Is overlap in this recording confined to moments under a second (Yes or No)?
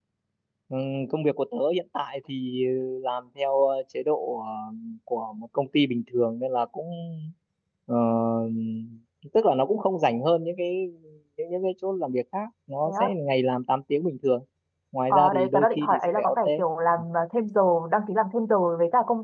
No